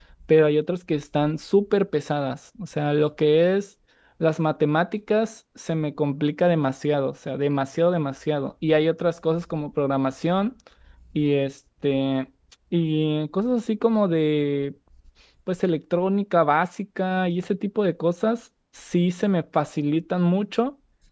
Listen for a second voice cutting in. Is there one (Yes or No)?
No